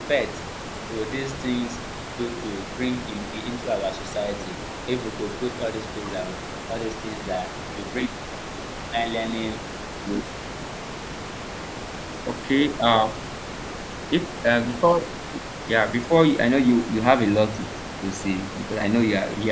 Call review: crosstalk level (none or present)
none